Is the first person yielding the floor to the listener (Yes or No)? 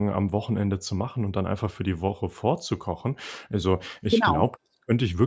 No